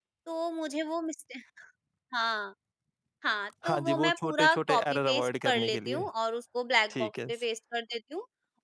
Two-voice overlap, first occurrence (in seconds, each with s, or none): 3.6 s